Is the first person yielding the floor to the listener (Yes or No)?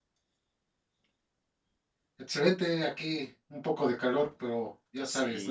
Yes